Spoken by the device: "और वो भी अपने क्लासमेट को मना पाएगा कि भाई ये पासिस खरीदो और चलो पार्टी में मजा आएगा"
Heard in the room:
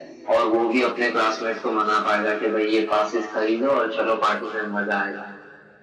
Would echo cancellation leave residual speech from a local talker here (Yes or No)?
No